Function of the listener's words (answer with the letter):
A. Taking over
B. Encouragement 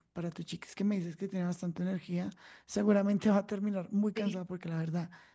B